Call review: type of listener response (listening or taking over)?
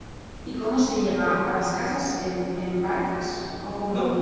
taking over